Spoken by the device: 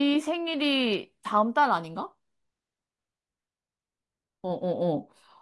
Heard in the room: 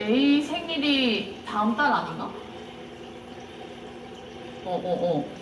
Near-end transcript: none

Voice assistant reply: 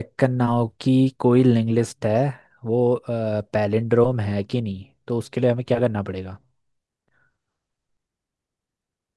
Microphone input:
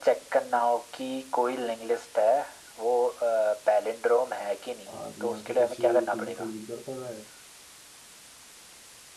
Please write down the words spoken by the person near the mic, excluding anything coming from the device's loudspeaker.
और या तो किसी टीम को लीड करते हुए

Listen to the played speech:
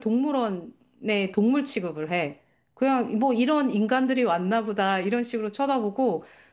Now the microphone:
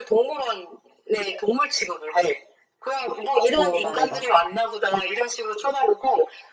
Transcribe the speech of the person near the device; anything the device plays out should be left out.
어, 말해봐.

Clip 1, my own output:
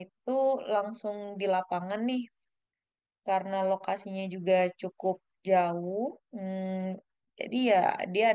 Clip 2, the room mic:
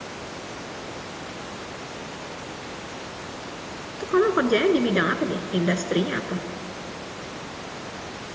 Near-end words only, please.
Itu kamu kerjanya di bidang apa deh? Industrinya apa?

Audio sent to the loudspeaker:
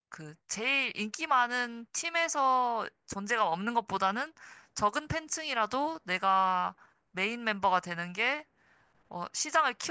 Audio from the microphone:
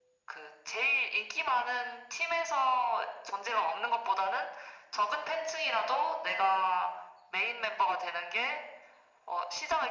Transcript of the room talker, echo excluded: none

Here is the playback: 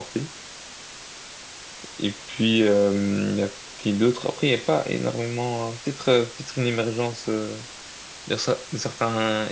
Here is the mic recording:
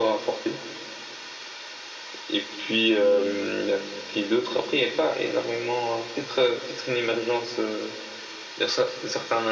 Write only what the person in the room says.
none

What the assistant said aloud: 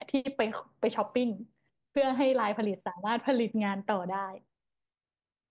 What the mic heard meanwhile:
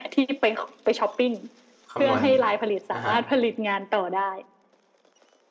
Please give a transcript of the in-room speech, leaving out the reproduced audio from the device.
คำนวณอ่ะฮะ

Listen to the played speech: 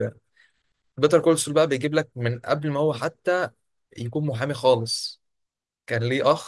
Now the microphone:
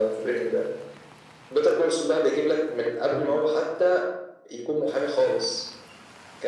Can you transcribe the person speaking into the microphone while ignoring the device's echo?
كان

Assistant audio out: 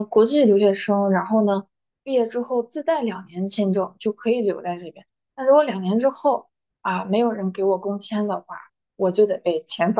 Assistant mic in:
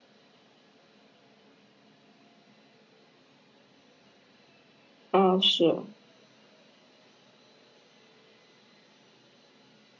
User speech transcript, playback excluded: 啊，是。

